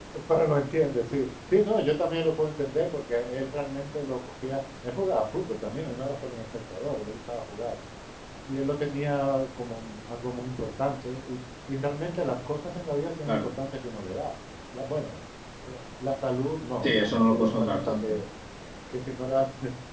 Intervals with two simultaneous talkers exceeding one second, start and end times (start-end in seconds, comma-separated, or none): 16.8-18.2